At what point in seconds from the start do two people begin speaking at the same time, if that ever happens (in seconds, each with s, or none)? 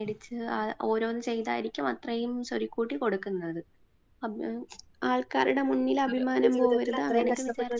6.1 s